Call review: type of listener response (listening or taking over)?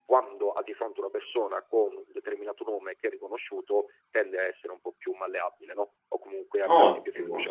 taking over